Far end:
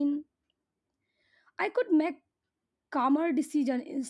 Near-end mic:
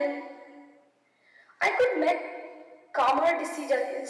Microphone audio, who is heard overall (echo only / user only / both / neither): echo only